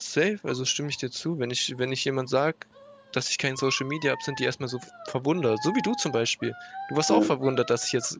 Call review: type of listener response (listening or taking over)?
listening